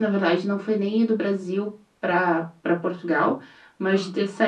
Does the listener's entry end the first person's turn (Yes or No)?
No